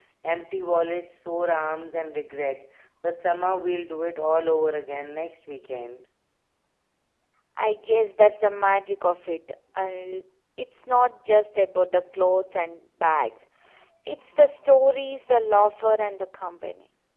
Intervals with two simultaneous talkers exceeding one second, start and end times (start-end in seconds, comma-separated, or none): none